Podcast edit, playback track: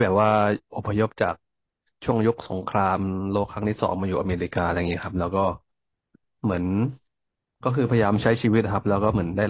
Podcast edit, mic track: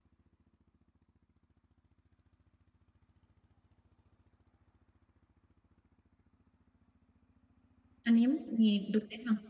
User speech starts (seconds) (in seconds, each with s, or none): 8.0 s